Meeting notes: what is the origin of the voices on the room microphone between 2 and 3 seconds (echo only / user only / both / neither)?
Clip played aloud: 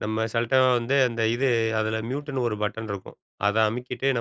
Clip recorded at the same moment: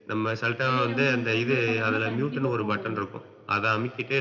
both